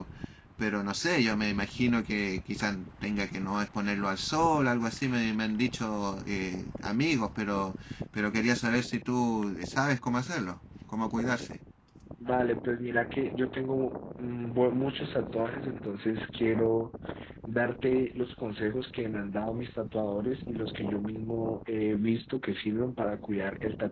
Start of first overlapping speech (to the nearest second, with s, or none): none